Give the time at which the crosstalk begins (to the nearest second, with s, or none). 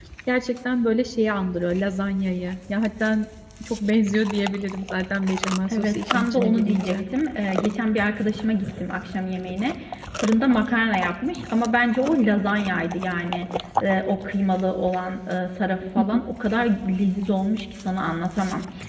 6 s